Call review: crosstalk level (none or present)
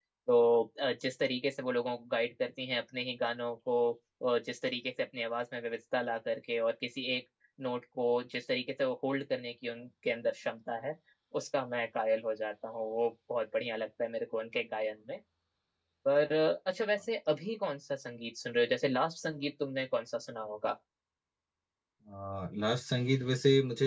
none